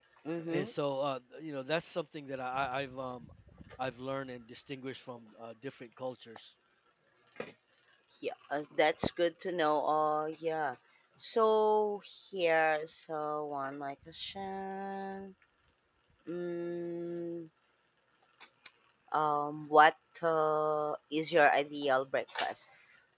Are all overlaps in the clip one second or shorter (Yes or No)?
Yes